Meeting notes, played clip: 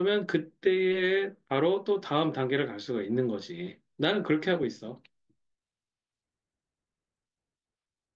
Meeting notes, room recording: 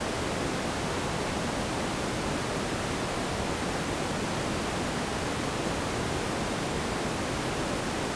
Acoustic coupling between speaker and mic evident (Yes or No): No